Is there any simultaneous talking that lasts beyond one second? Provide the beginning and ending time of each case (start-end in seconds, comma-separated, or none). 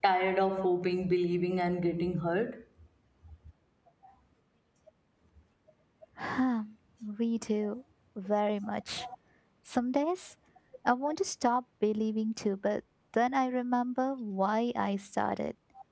none